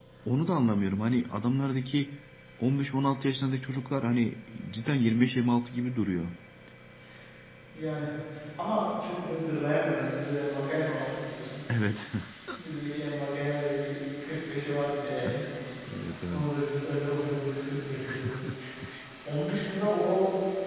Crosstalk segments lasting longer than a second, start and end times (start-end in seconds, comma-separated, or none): none